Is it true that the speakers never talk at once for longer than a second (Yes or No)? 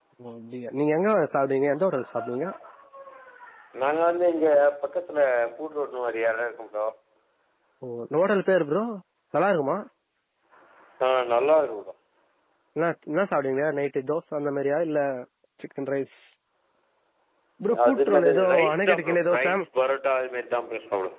No